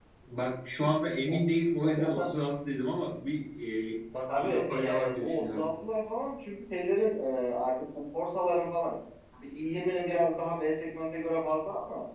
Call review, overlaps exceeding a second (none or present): present